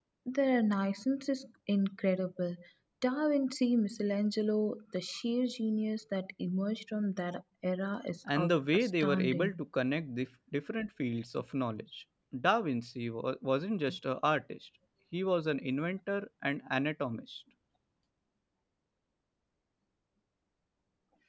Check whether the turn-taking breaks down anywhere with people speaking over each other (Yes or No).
Yes